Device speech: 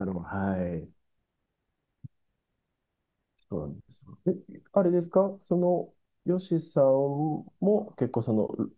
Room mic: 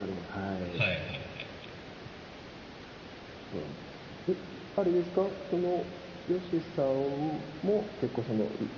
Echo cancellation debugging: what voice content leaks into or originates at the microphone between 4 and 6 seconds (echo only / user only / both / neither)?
echo only